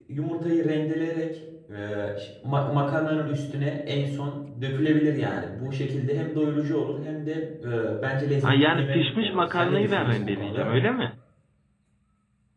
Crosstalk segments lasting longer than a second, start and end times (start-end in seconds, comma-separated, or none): 8.4-10.7